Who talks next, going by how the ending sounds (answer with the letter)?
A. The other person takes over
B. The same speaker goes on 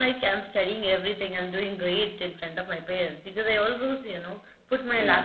B